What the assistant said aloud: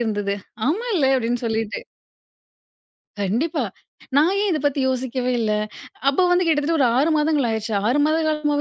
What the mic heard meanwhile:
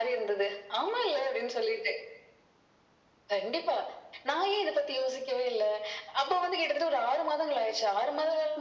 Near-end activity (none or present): none